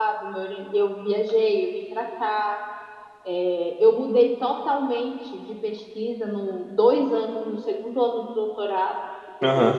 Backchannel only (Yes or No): Yes